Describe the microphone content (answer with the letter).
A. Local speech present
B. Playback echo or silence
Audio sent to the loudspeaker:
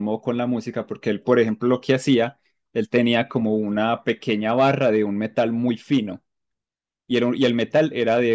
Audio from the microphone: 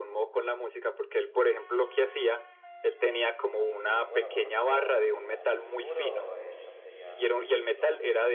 A